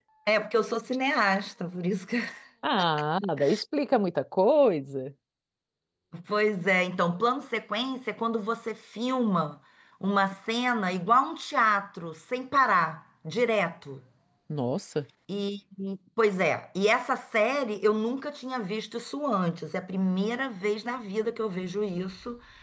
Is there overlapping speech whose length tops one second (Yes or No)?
No